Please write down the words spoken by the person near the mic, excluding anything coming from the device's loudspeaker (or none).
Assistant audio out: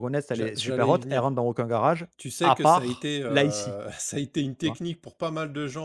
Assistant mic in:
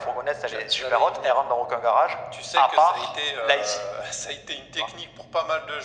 none